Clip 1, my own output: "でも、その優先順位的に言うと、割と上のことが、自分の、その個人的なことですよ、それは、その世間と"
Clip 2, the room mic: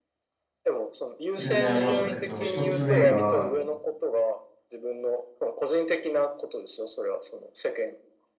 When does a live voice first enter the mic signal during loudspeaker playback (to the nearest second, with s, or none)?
1 s